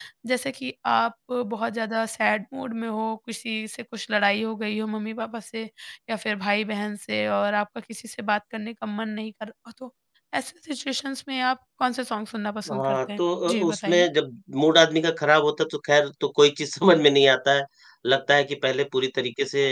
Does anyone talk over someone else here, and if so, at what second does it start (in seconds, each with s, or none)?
12.7 s